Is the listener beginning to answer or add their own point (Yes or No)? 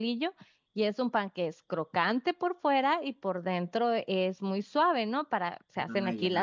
No